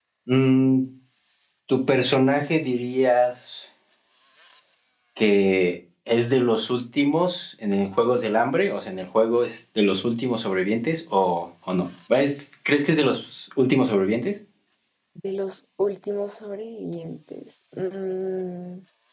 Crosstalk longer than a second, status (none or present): none